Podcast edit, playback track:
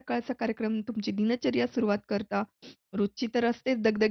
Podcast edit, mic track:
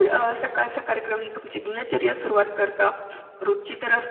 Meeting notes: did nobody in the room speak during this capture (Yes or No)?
Yes